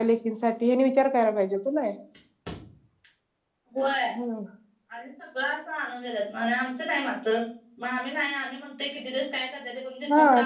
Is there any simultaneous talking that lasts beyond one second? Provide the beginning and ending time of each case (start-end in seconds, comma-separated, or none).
none